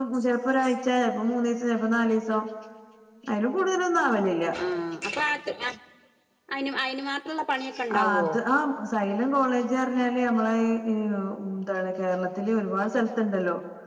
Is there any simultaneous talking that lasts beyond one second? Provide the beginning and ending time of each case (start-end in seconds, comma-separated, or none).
none